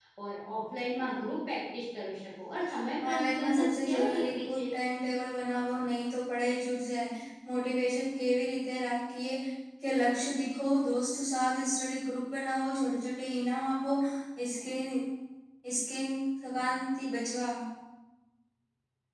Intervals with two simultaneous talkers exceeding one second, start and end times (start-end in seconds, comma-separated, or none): 3.1-4.6